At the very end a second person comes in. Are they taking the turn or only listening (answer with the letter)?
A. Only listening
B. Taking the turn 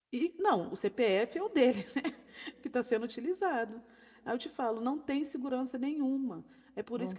A